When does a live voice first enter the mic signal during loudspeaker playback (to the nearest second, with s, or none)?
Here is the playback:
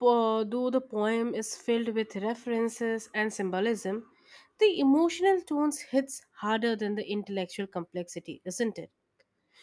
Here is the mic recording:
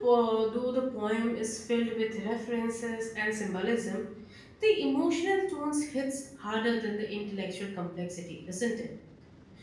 none